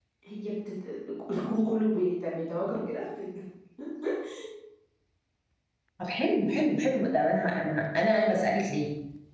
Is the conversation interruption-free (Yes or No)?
Yes